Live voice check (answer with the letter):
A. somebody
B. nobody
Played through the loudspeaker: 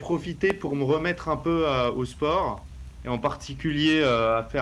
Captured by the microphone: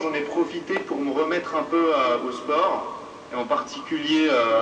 B